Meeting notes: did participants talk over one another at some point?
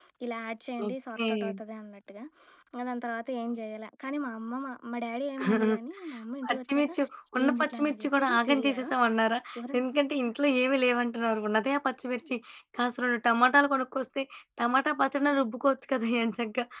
Yes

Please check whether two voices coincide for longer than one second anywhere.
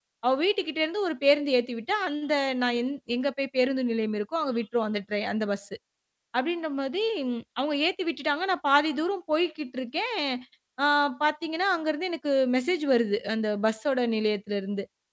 No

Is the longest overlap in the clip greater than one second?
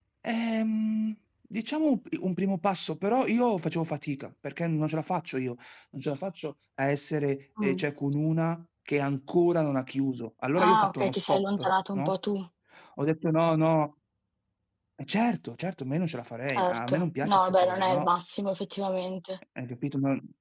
Yes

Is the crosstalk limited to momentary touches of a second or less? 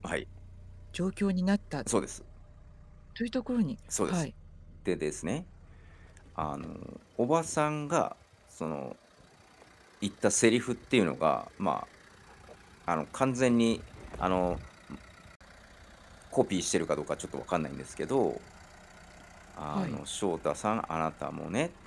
Yes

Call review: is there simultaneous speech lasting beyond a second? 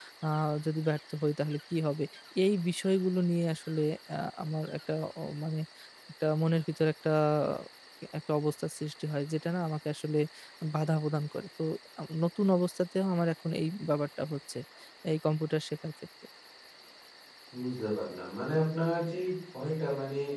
No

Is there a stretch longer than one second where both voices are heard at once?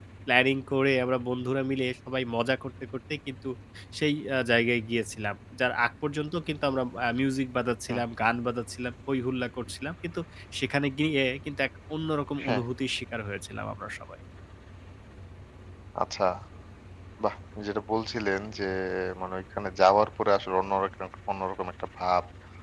No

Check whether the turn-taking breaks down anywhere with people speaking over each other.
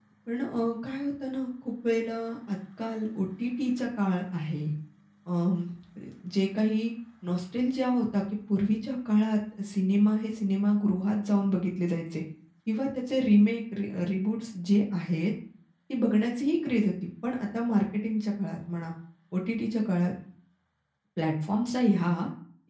No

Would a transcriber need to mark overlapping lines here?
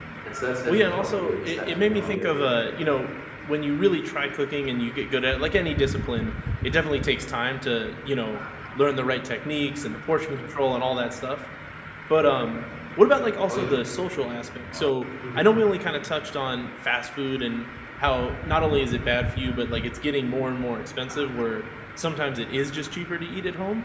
Yes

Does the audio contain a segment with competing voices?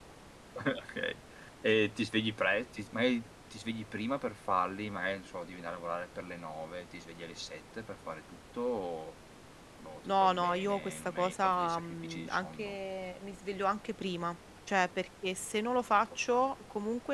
Yes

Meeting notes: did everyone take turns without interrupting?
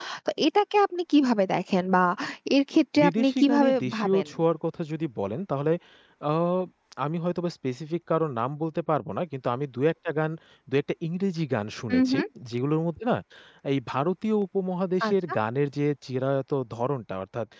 No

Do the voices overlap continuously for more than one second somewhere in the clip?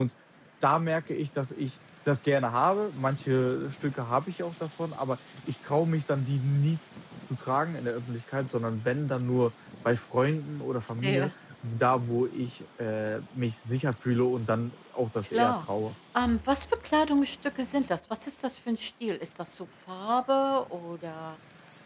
No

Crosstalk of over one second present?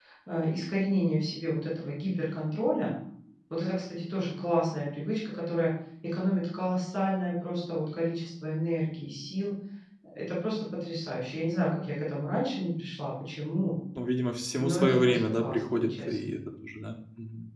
Yes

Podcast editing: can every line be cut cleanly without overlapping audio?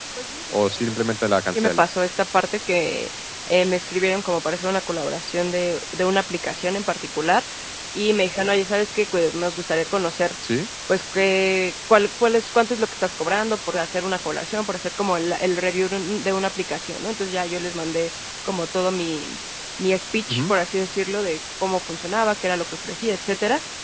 No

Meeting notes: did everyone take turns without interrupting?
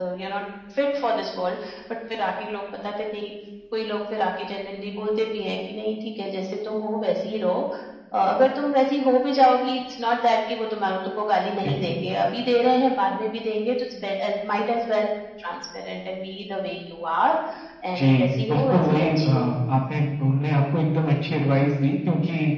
No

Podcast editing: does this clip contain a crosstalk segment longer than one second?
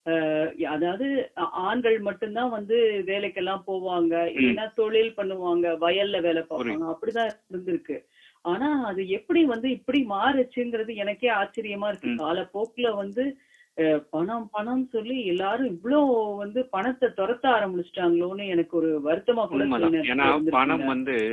Yes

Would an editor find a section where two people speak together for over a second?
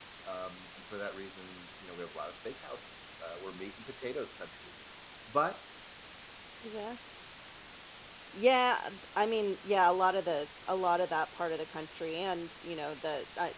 No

